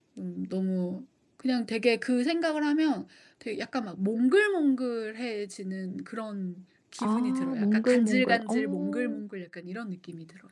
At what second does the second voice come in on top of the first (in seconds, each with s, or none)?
7.0 s